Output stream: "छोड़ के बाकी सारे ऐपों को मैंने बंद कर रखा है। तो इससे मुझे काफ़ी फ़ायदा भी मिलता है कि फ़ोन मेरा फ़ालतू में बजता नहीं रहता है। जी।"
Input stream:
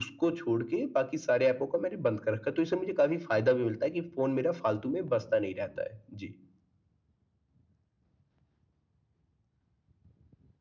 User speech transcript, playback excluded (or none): none